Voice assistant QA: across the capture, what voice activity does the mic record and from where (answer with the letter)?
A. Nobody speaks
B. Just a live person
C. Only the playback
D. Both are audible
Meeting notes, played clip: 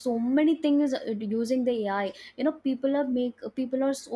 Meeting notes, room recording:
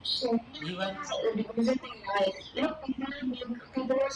D